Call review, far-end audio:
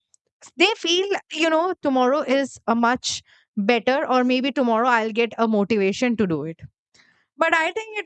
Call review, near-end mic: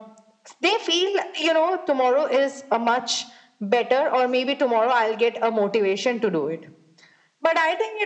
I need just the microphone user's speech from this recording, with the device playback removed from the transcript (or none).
none